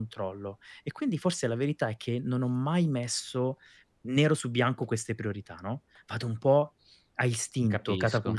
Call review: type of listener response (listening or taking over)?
listening